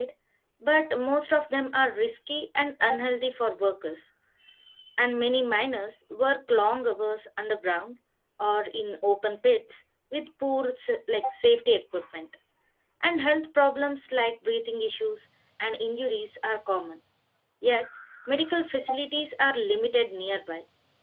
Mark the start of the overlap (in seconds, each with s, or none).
none